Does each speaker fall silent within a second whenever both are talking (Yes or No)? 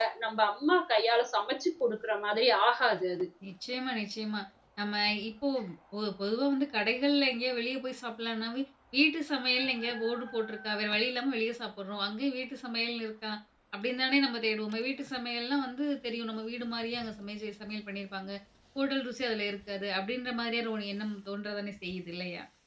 Yes